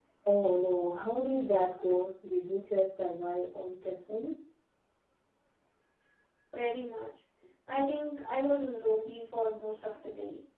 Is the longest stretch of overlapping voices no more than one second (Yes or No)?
Yes